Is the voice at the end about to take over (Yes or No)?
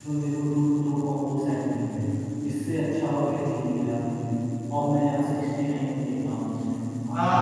Yes